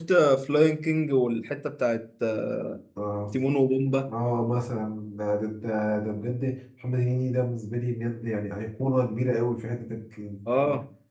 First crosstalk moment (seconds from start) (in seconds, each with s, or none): none